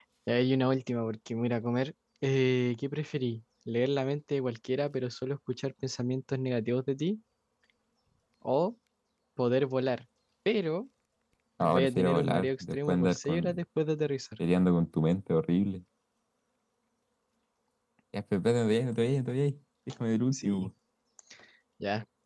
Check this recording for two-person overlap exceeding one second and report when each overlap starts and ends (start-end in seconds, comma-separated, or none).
11.6-13.6